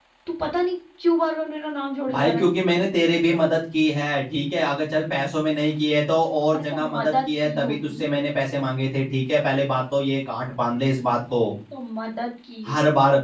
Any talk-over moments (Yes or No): Yes